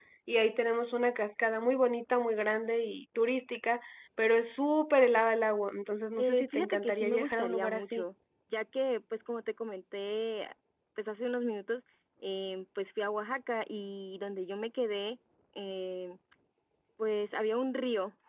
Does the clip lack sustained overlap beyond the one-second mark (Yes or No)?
No